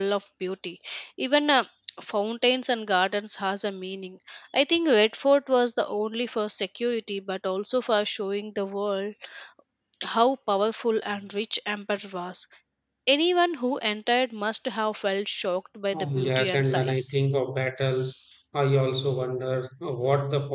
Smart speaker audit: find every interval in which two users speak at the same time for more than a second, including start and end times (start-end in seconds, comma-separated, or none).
15.9-17.1